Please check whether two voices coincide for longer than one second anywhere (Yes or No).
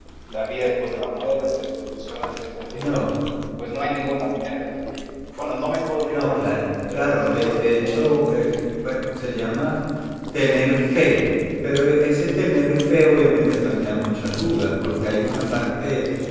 Yes